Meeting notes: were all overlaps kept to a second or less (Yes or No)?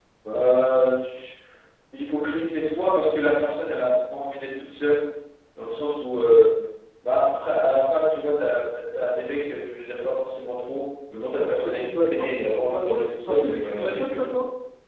No